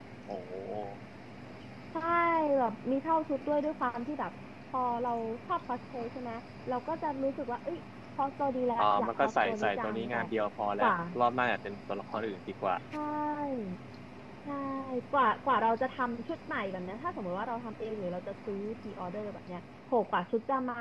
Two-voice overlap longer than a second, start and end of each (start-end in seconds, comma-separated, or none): 8.8-10.2